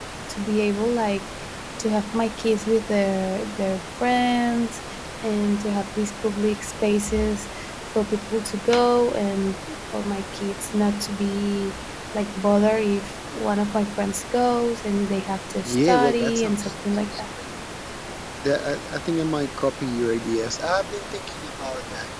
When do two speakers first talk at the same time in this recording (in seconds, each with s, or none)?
15.6 s